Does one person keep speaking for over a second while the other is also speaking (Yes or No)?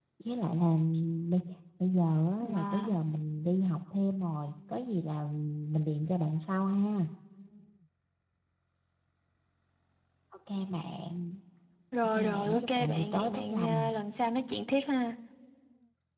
Yes